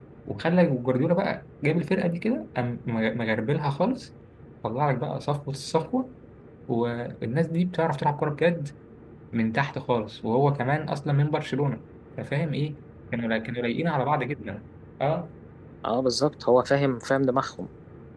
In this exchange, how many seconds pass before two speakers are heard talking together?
none

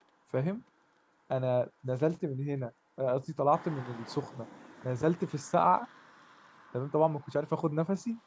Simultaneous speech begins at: none

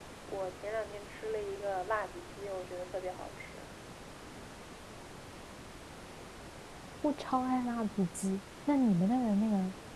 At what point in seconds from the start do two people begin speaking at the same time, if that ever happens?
none

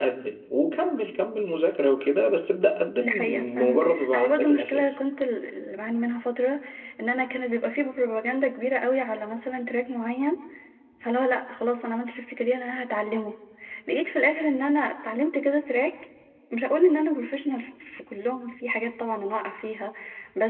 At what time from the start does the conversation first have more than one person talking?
3.0 s

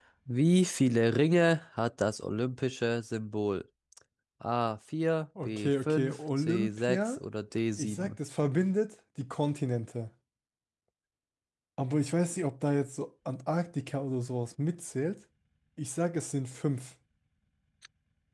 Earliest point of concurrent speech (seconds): 5.4 s

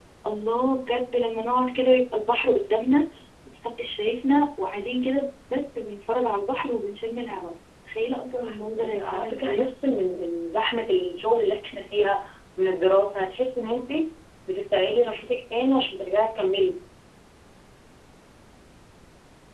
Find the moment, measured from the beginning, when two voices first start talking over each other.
8.4 s

